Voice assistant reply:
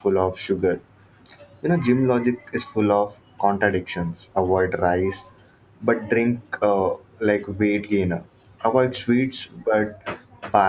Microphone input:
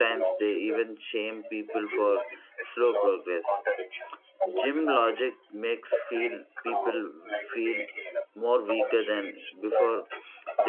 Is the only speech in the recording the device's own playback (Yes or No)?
No